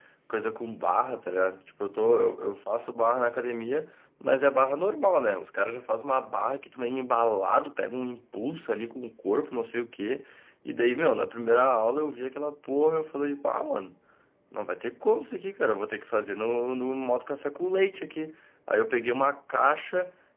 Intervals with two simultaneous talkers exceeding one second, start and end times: none

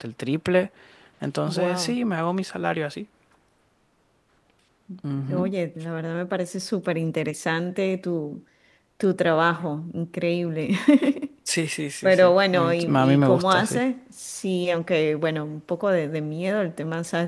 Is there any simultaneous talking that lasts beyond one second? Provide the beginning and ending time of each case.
12.0-13.8

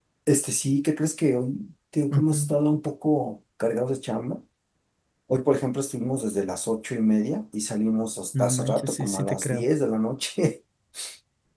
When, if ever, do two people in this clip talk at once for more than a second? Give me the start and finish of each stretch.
8.3-9.6

